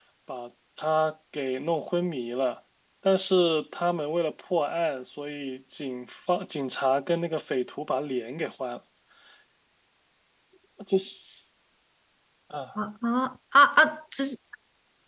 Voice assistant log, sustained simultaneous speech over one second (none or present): none